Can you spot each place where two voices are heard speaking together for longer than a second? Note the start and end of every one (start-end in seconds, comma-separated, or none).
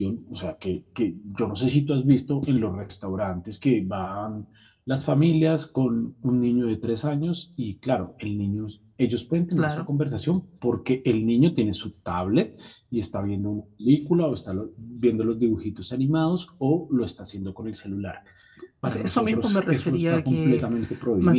18.9-20.6